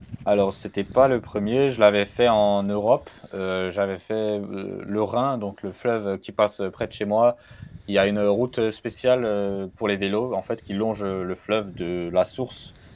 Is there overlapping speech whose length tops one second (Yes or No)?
No